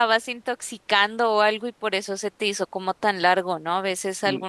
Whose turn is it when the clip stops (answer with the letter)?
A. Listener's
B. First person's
B